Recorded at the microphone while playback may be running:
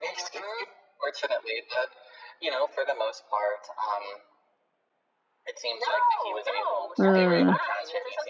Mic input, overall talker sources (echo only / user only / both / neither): both